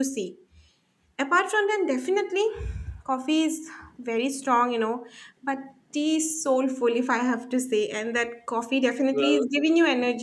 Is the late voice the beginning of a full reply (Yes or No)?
No